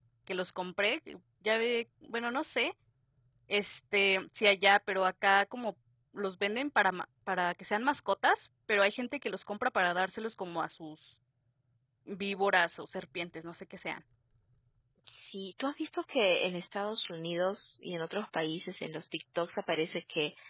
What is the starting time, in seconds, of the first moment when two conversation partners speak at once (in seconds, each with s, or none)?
none